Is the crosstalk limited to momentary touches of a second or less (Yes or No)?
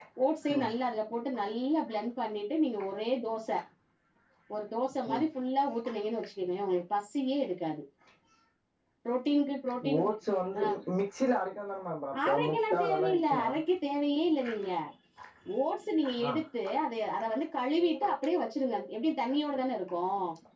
No